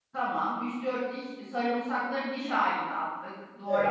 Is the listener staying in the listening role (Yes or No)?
No